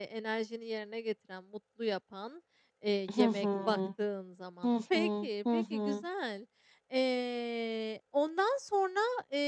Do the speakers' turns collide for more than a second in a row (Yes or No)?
Yes